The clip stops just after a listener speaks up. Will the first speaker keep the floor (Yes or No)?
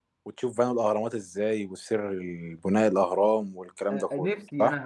No